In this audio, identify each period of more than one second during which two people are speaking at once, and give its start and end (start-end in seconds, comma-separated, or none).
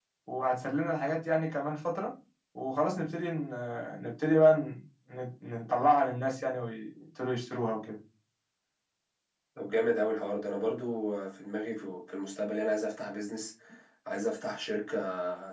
none